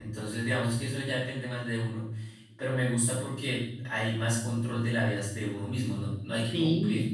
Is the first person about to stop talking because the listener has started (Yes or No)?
No